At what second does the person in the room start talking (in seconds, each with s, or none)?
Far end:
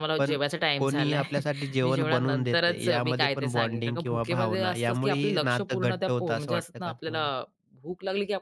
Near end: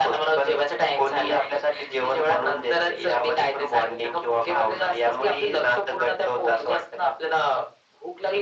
none